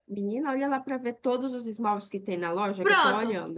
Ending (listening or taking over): taking over